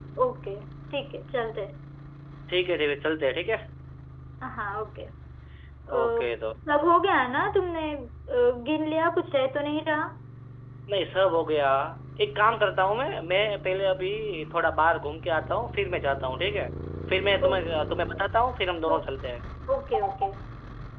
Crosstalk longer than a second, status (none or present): none